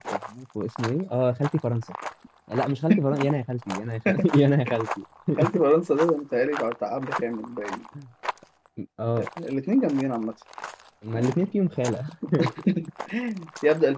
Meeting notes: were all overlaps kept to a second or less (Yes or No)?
Yes